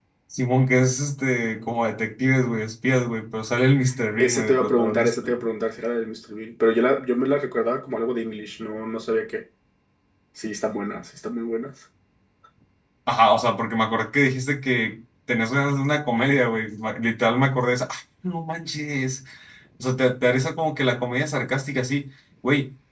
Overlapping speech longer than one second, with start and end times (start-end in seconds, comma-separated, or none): 4.2-5.4